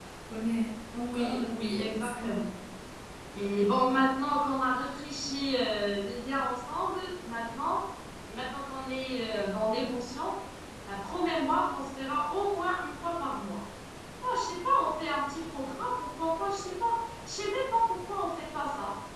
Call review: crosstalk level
present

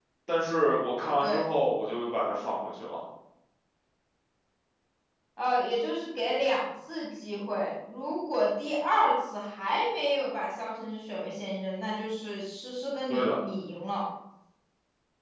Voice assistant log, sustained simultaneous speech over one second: none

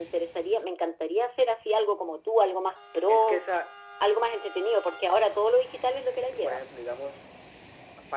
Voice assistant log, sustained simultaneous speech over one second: none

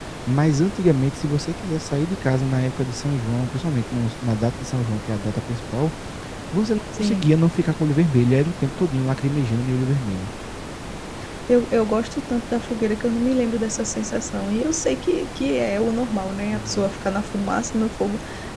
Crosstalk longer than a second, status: none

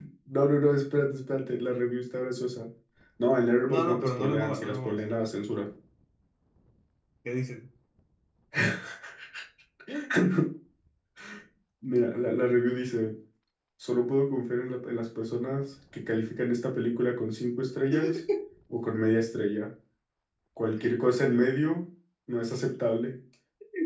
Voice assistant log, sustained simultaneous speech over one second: present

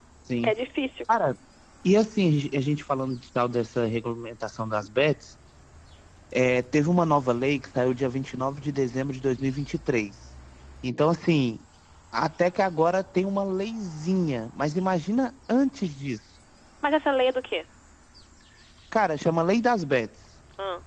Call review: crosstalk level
none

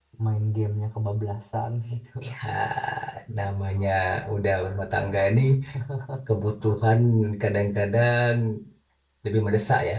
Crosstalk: none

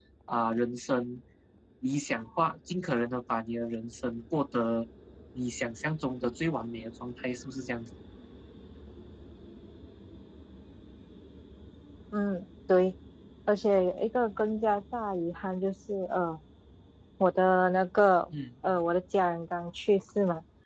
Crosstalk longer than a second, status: none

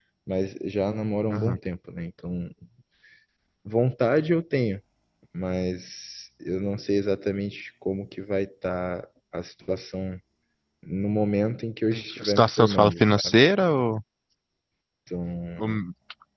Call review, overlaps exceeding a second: present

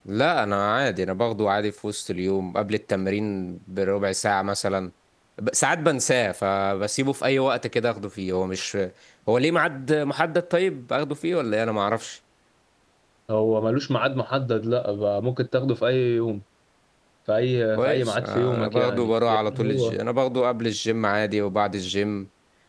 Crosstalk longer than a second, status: present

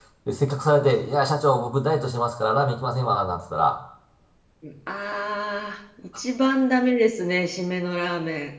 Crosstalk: none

